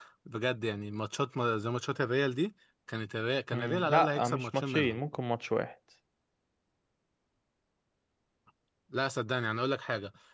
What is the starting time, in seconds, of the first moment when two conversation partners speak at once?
3.5 s

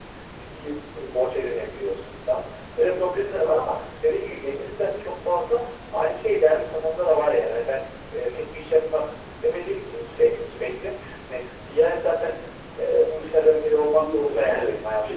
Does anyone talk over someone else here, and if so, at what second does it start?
13.8 s

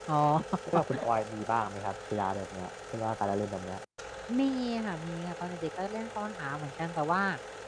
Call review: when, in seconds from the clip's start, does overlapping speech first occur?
none

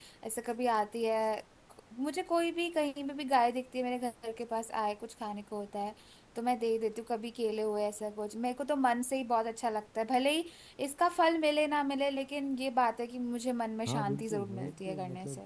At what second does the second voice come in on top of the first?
13.9 s

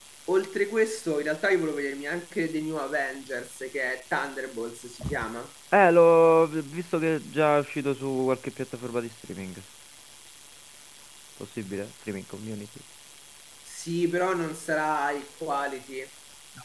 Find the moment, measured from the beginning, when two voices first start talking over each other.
none

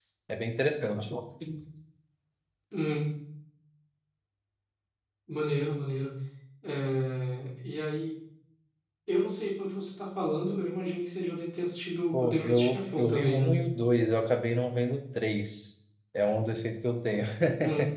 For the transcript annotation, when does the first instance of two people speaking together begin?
12.1 s

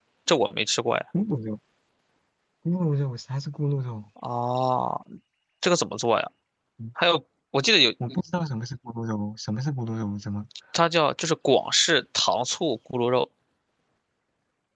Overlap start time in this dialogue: none

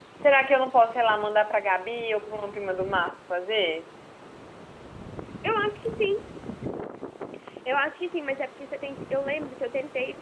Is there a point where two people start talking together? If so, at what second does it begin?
none

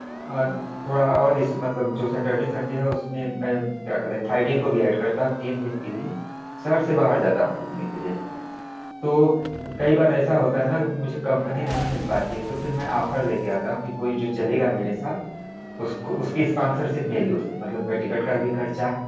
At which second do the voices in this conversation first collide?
none

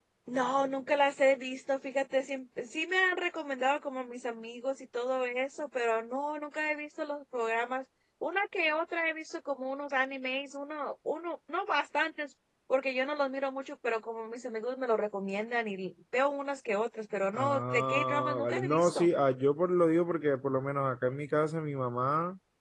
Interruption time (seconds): 17.3 s

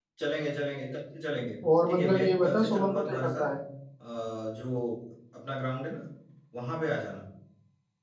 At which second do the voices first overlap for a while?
1.6 s

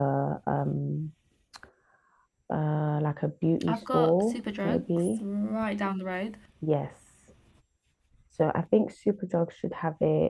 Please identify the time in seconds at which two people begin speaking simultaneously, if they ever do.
3.6 s

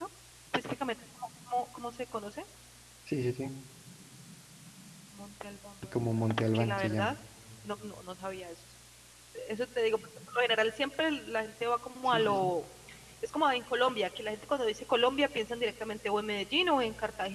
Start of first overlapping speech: 5.8 s

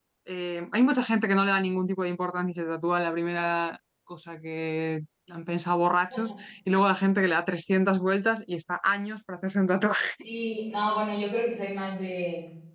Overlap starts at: none

